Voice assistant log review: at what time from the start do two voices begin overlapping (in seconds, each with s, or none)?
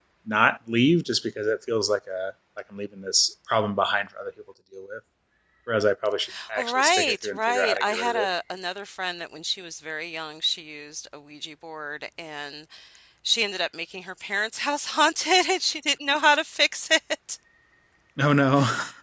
6.6 s